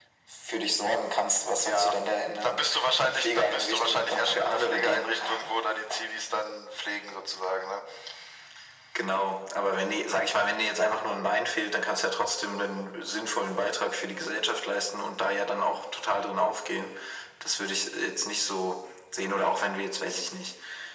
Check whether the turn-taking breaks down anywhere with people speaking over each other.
Yes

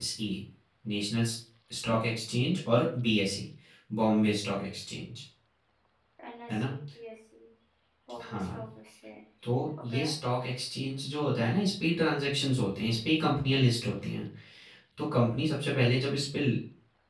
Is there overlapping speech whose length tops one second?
No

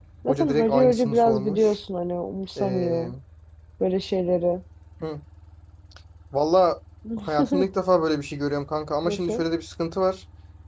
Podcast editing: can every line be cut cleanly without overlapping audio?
No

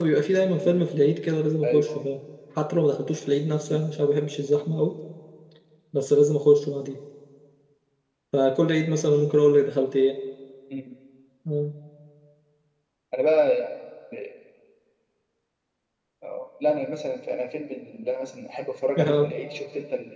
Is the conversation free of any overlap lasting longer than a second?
Yes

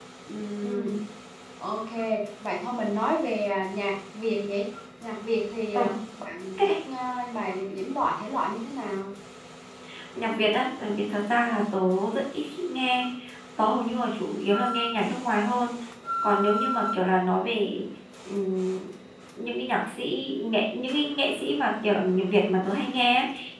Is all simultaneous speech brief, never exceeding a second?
Yes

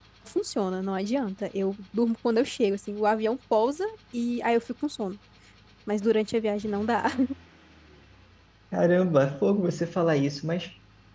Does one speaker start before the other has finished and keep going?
No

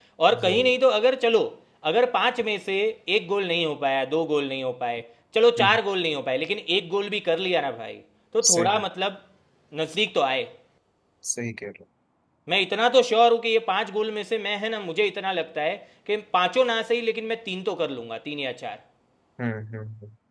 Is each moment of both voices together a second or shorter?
Yes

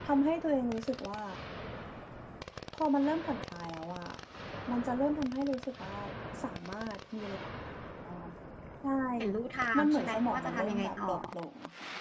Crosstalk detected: Yes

